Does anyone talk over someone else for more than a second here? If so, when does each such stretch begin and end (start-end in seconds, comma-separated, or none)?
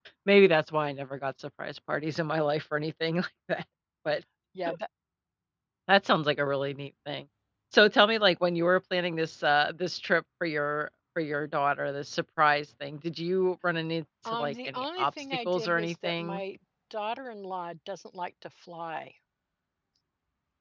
14.2-16.4